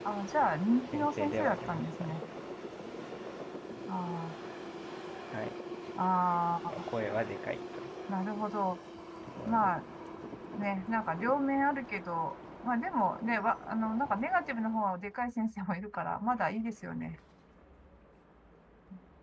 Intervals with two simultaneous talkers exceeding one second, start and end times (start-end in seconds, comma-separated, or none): 0.8-2.2